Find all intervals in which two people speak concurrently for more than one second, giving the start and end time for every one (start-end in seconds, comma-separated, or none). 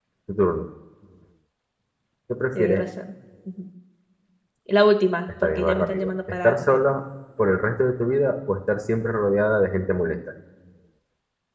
5.4-6.8